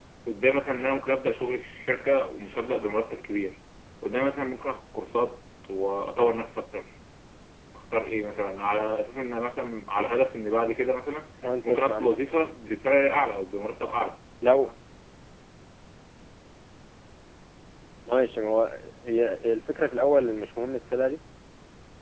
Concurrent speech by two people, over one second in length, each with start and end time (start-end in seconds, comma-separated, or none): none